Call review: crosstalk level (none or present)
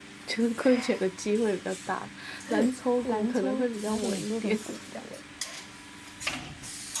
present